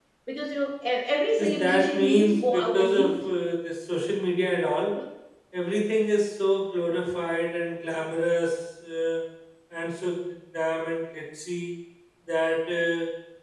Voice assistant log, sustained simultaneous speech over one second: present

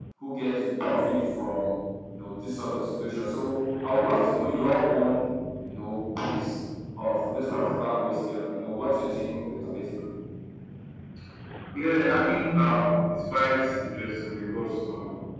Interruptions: none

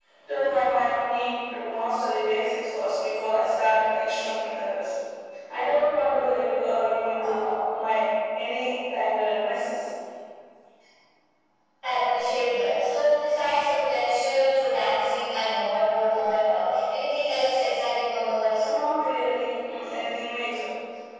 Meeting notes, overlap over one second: none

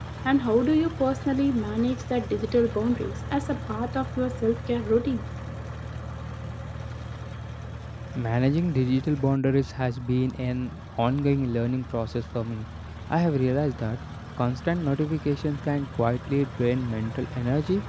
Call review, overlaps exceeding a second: none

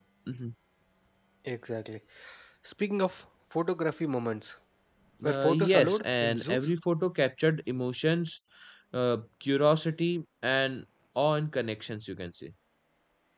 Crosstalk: present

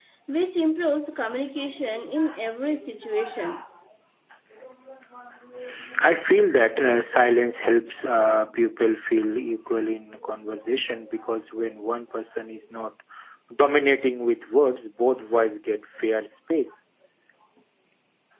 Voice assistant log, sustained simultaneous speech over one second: none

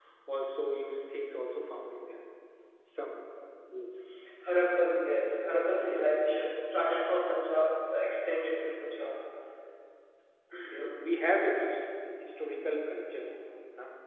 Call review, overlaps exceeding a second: none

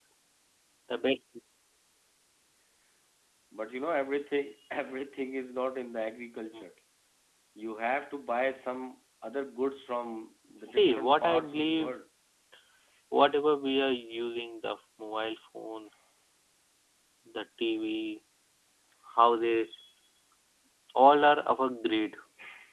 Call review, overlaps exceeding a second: present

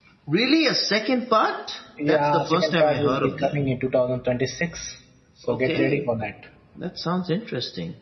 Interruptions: present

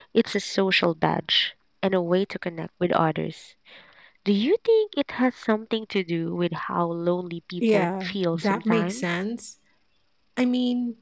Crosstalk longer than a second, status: present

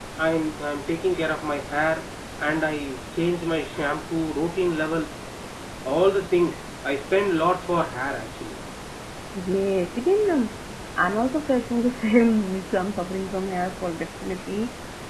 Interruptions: none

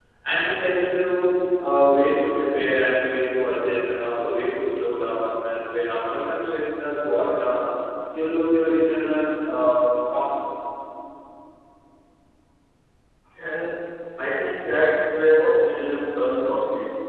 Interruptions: none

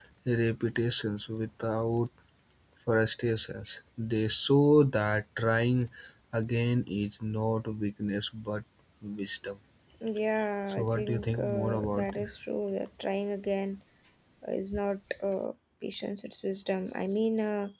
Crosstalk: present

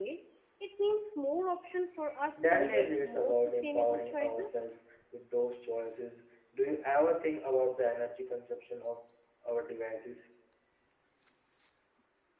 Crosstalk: present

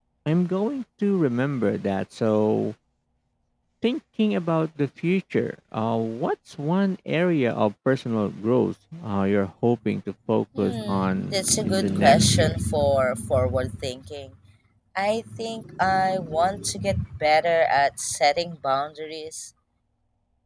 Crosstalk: present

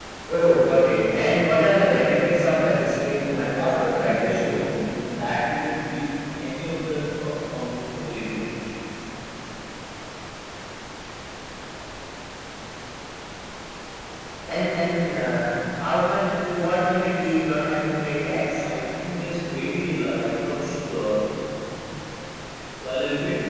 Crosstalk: present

